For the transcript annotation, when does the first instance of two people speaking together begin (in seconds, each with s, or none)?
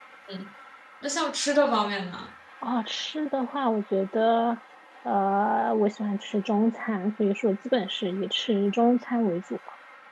none